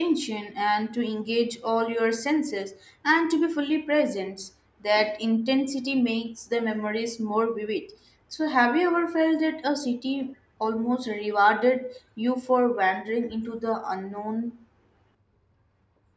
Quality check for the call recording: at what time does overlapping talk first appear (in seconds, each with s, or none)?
none